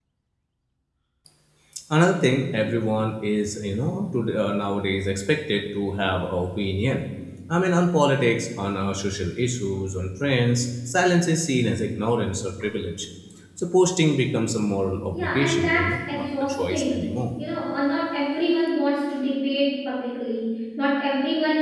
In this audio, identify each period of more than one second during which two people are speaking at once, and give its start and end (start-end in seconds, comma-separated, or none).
15.1-17.1